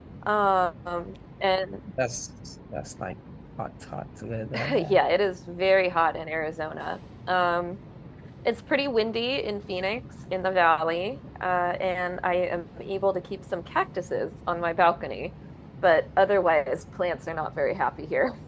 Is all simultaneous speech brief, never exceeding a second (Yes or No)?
Yes